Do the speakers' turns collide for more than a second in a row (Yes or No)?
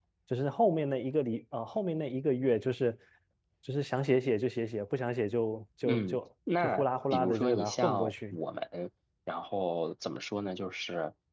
Yes